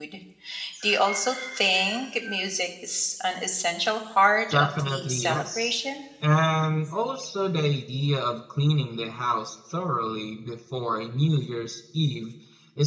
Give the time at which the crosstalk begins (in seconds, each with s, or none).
4.5 s